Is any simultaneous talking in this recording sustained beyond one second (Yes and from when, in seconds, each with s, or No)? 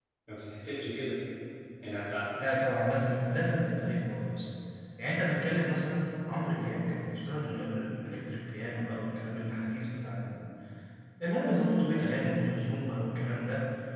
No